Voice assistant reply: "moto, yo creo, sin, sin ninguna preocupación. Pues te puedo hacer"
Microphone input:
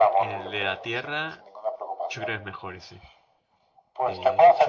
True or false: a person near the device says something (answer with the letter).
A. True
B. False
A